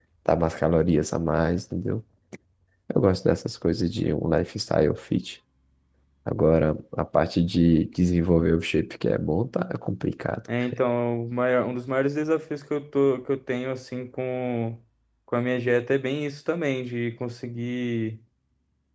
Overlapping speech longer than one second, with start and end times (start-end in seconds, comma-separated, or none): none